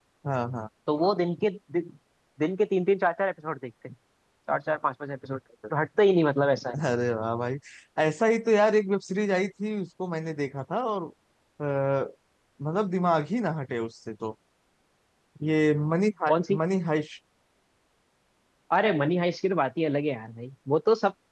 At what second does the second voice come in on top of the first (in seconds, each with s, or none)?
none